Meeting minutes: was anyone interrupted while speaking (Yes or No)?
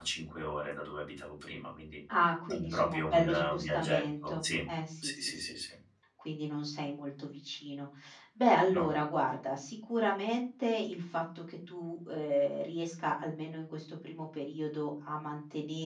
Yes